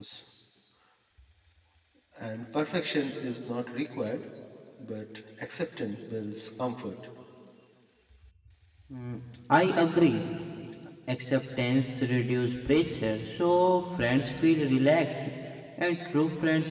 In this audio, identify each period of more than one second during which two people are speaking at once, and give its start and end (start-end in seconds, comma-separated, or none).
none